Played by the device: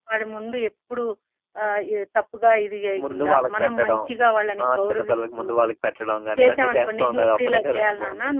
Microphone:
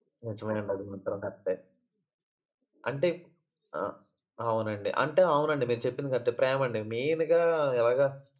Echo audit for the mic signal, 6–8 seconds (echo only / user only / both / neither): user only